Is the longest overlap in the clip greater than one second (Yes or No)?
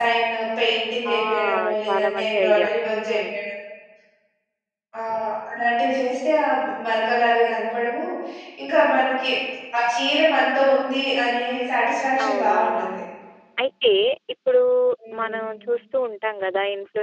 Yes